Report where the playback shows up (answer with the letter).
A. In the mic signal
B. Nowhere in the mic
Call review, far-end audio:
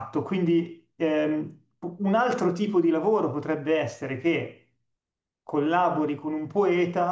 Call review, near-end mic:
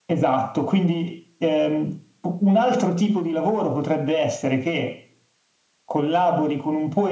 A